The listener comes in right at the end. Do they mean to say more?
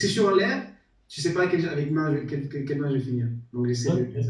No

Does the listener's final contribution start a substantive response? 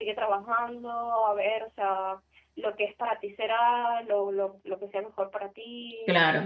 Yes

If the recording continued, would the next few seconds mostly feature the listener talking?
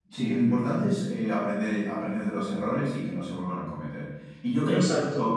No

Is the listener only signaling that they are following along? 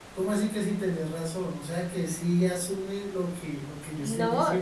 No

